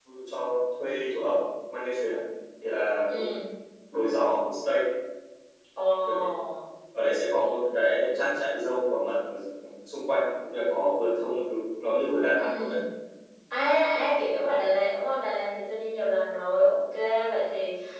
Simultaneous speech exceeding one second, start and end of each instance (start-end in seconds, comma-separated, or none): none